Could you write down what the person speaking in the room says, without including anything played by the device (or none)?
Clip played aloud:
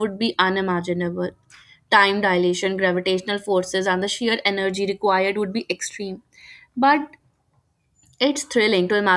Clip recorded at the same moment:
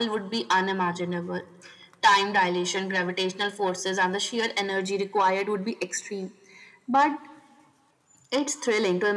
none